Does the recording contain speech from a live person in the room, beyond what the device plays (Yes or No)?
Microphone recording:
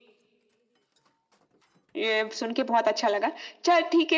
No